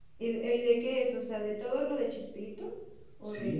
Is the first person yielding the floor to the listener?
Yes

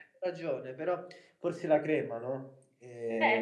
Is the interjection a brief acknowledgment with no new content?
No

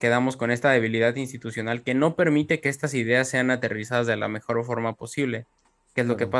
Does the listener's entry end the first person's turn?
No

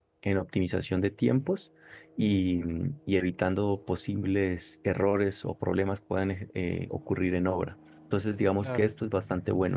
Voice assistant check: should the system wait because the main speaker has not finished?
Yes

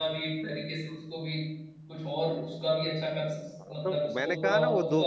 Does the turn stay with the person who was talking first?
No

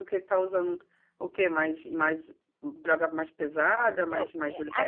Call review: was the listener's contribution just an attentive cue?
No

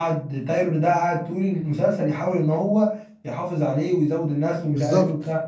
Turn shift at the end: Yes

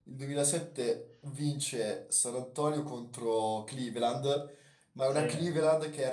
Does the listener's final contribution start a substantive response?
No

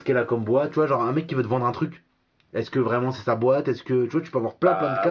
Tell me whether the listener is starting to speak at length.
Yes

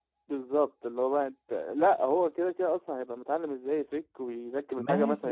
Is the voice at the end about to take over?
Yes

